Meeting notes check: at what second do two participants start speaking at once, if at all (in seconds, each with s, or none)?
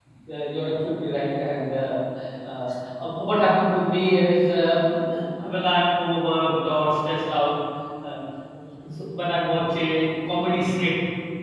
none